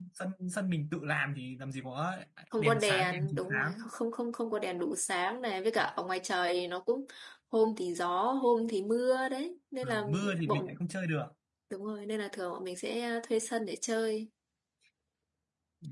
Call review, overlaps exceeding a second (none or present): present